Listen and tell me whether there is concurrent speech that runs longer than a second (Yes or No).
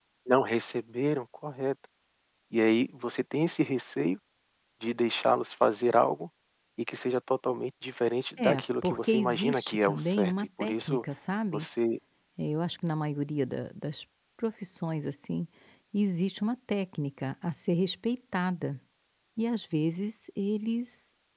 Yes